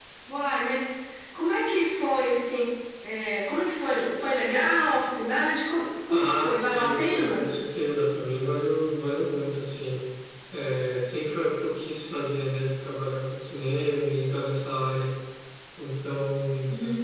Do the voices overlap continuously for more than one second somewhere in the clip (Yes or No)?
Yes